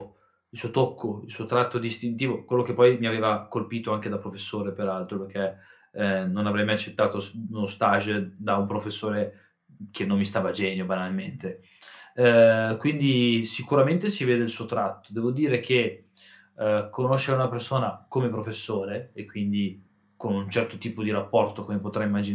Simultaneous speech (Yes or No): No